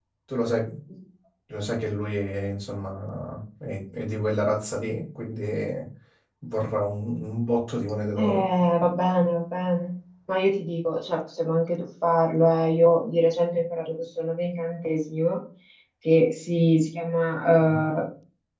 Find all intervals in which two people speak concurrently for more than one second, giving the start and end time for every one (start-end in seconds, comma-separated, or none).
none